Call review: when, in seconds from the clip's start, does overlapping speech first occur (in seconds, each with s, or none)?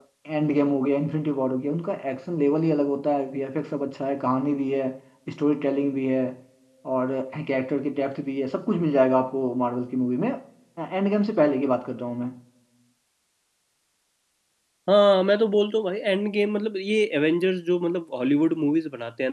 none